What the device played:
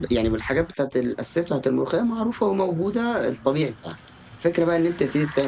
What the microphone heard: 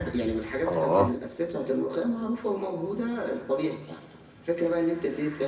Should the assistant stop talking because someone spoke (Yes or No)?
Yes